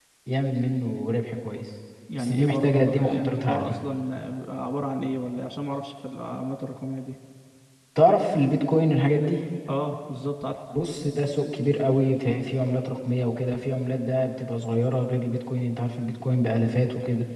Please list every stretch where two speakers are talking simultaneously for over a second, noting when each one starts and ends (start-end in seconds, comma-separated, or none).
2.2-3.7